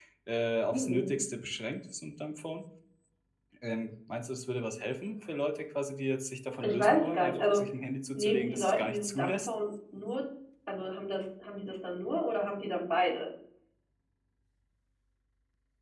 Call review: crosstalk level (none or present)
present